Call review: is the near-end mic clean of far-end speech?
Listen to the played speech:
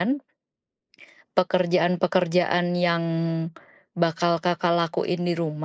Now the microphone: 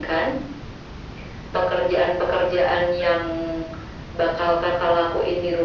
No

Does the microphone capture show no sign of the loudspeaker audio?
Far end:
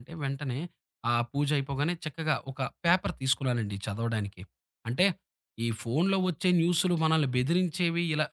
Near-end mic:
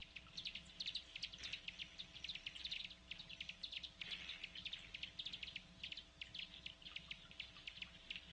Yes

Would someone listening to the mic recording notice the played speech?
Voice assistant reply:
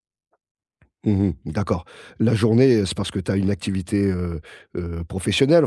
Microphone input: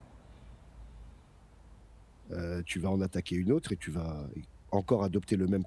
No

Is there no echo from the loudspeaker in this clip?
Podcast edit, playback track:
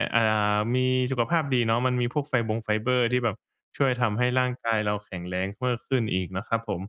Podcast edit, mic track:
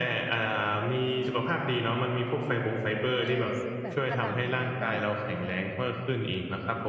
No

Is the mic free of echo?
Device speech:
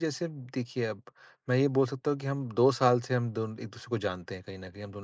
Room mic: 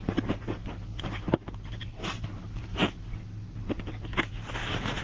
Yes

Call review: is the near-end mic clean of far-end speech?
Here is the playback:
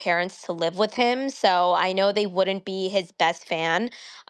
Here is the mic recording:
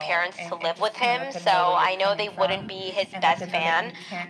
No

